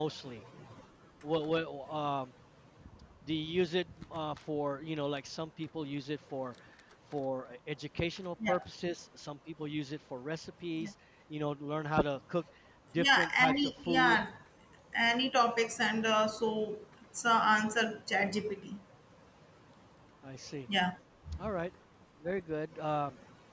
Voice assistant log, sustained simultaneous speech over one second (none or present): present